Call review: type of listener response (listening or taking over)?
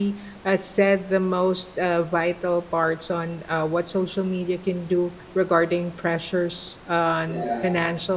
listening